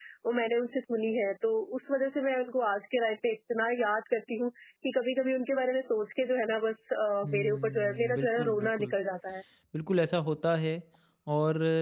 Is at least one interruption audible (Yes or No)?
Yes